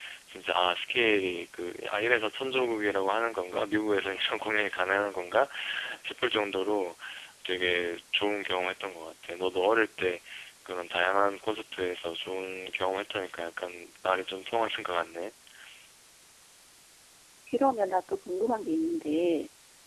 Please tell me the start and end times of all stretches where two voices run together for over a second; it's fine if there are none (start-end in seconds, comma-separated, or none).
none